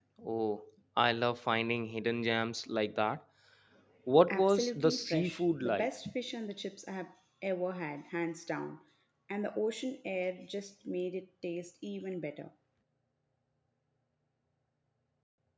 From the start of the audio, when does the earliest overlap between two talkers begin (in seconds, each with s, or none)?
4.3 s